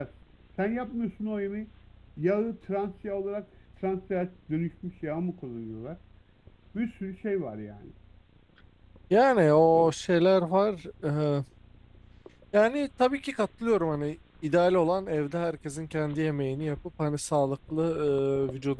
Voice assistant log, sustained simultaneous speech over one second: none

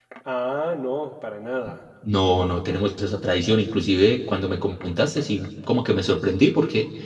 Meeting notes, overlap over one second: none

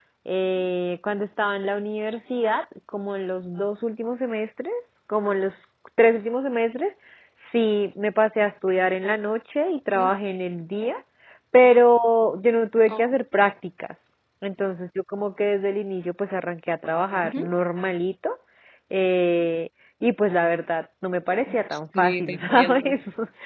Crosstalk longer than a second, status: present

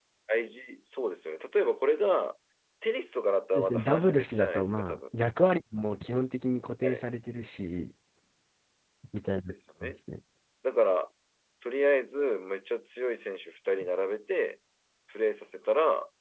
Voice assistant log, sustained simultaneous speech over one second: present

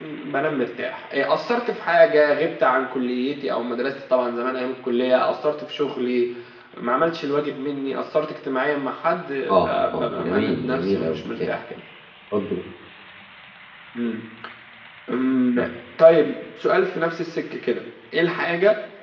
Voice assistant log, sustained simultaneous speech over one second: present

